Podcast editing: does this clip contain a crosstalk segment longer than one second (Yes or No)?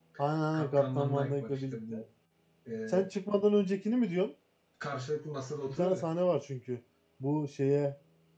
Yes